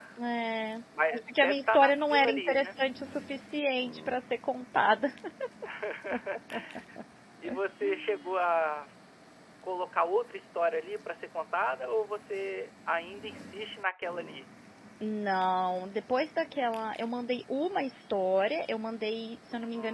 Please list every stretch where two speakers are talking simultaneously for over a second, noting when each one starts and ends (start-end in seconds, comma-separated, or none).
1.1-2.8